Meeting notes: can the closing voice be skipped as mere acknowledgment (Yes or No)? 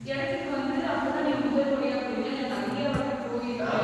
No